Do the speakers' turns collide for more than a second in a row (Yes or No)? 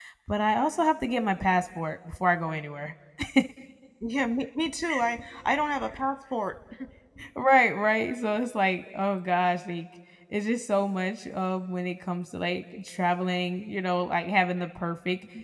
No